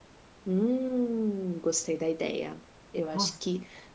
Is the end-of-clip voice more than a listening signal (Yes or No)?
No